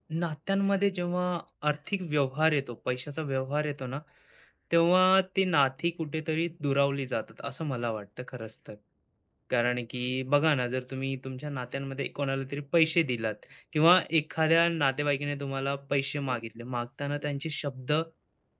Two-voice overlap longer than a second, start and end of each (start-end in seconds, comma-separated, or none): none